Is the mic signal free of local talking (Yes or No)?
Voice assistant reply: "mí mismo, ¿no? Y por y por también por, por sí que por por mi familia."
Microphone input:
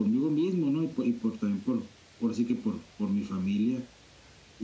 Yes